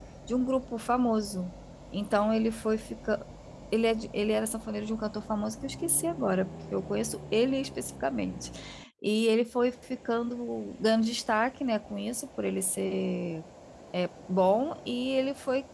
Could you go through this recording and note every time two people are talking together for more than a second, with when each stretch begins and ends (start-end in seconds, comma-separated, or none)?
none